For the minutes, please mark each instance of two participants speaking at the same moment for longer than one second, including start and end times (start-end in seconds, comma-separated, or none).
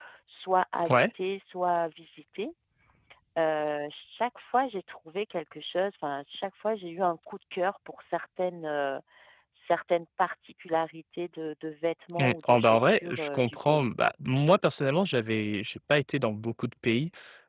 12.2-13.9